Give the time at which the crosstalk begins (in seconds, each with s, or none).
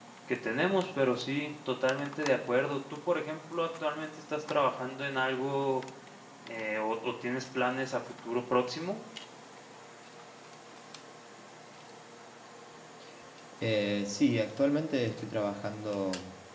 none